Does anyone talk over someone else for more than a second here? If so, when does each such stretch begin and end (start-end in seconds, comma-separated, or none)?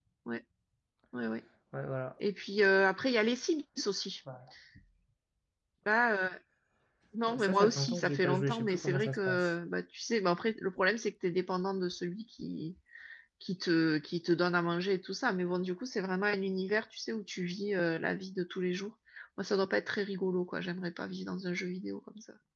7.3-9.5